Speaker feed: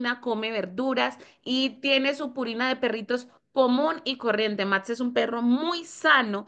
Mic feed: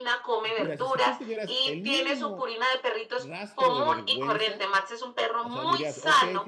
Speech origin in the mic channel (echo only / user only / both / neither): both